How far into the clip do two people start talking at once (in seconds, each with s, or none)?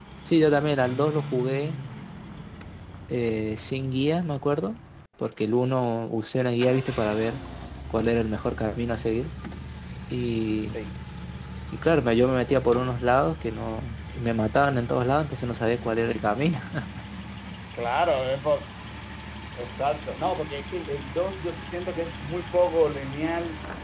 none